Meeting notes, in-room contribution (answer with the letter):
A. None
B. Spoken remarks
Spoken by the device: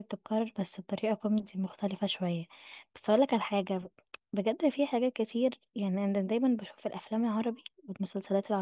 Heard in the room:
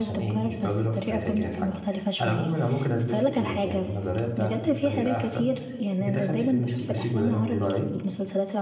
B